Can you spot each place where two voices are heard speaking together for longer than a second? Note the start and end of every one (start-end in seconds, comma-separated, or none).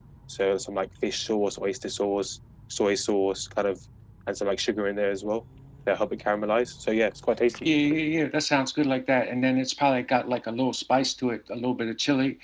none